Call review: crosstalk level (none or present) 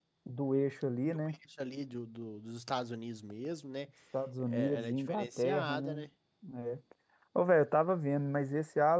present